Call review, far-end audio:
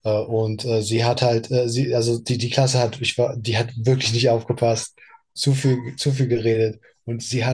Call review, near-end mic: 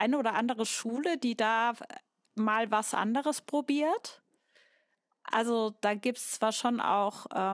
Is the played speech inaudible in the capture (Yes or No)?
Yes